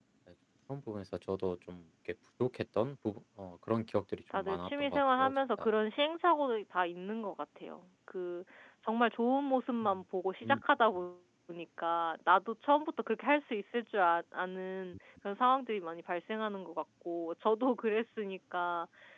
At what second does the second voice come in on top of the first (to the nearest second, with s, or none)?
4 s